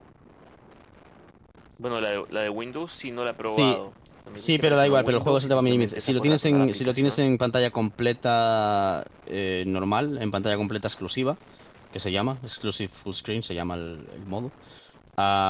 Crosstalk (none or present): present